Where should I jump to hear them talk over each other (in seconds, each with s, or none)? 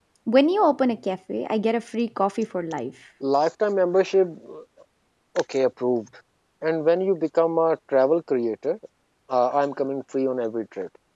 none